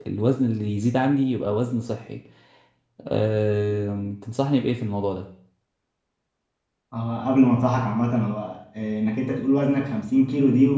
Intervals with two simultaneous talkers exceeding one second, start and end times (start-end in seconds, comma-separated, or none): none